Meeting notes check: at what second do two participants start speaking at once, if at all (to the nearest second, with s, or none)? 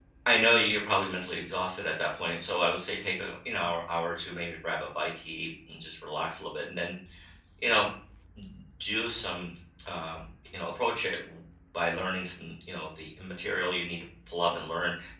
none